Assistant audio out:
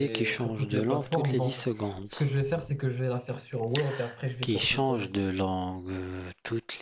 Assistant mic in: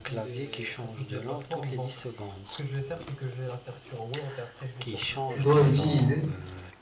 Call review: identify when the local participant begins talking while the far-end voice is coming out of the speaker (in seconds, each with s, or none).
5.3 s